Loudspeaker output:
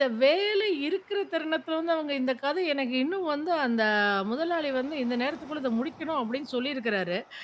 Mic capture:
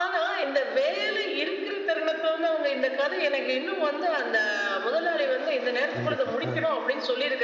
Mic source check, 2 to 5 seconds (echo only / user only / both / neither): echo only